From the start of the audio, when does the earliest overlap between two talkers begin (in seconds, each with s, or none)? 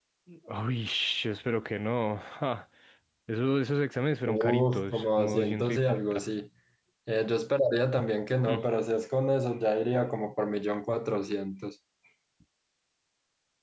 4.2 s